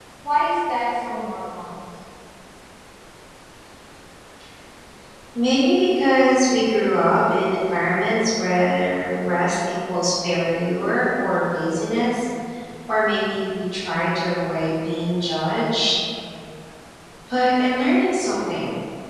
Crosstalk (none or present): none